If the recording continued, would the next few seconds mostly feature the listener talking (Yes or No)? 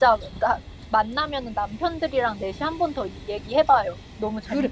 Yes